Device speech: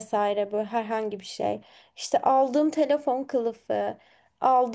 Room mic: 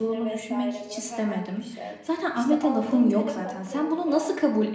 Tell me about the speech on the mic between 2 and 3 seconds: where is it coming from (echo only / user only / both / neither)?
both